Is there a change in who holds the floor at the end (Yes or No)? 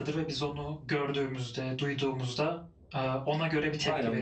Yes